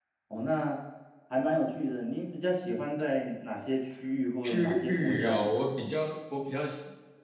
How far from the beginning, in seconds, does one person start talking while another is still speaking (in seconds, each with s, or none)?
4.4 s